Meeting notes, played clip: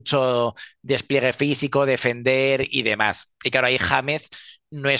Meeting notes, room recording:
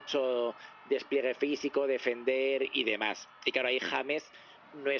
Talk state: echo only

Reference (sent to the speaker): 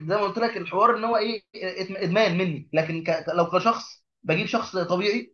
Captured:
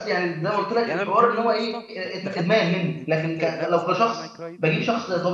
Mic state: both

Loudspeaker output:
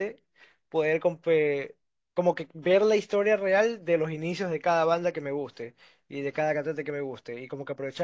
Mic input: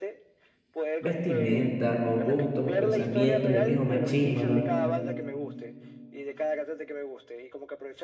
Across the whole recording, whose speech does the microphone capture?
both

